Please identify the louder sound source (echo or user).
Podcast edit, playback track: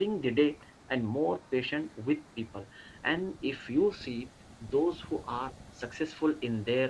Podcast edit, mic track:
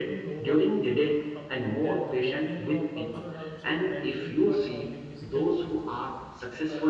echo